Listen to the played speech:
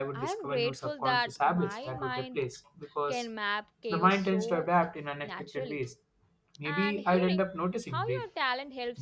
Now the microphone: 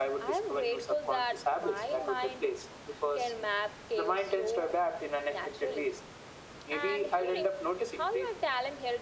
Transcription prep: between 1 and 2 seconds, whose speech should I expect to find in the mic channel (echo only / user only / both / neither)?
echo only